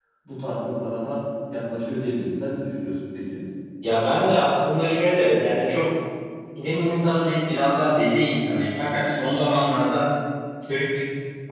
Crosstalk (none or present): none